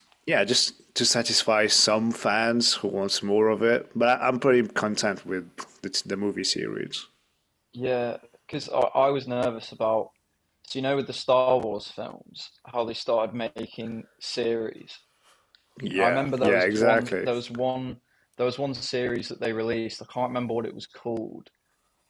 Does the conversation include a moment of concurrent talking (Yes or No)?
Yes